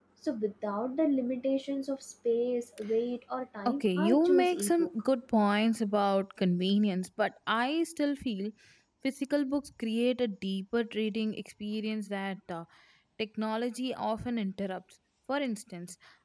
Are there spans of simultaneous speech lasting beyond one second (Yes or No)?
Yes